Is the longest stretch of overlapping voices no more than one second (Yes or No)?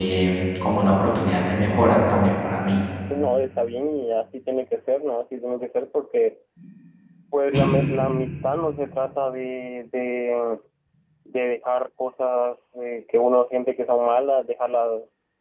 Yes